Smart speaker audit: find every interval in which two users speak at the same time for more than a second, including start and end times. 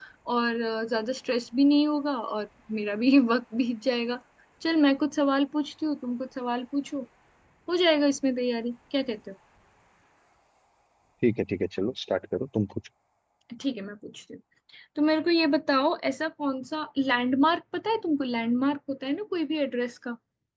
none

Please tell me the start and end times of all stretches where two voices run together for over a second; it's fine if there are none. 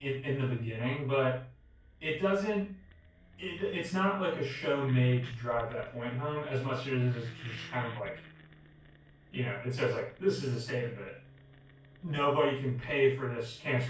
none

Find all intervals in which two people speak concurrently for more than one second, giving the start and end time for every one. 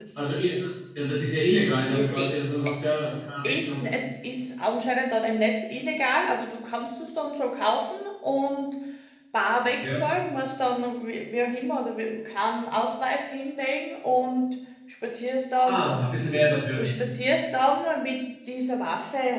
none

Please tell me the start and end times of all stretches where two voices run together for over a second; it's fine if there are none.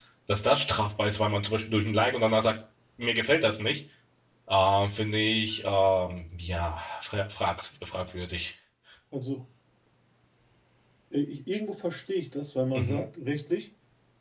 none

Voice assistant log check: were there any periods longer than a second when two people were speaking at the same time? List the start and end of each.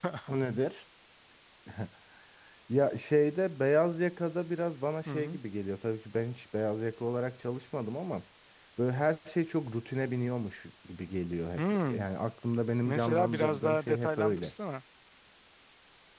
12.8-14.5

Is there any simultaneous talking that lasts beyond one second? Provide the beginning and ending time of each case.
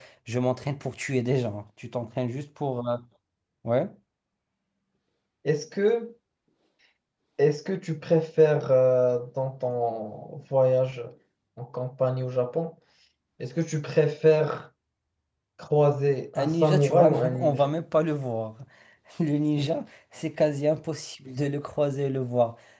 16.4-17.7

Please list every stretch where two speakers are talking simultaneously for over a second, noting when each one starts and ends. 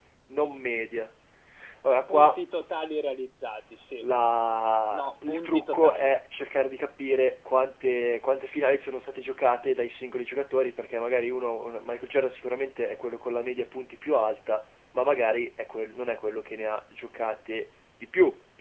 4.9-6.2

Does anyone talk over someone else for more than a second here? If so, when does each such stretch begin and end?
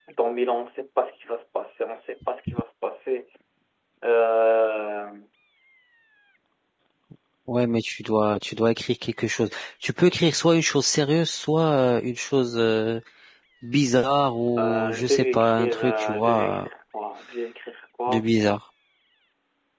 14.6-16.7

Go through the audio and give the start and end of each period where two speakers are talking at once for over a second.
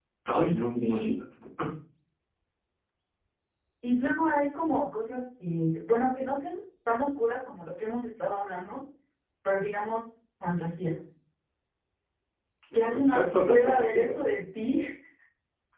12.9-14.1

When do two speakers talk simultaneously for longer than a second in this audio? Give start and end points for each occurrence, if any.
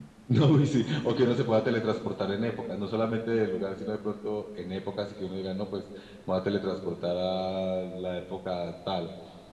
none

